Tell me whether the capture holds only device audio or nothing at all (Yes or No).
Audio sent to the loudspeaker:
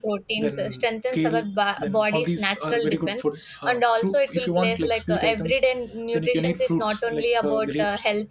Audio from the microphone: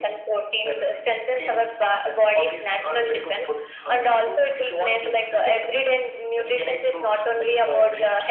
Yes